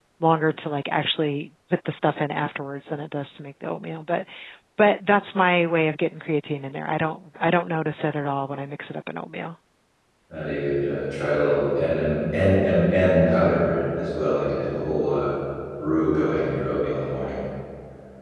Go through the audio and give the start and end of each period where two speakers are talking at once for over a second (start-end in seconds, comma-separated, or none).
none